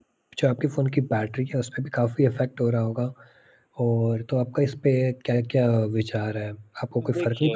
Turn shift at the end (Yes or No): No